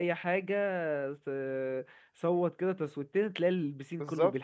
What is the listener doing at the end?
taking over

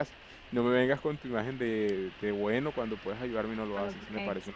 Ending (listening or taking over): taking over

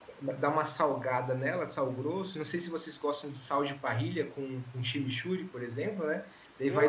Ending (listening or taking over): taking over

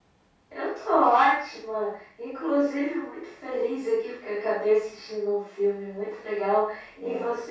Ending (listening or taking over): listening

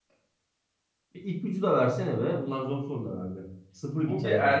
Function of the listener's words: taking over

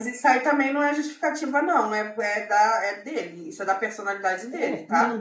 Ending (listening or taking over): taking over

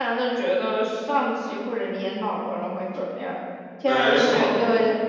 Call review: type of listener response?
listening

